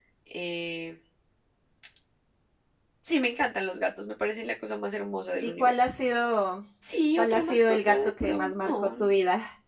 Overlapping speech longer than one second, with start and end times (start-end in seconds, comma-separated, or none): 7.2-8.9